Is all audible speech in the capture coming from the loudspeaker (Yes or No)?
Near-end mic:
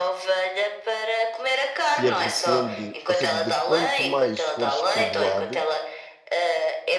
No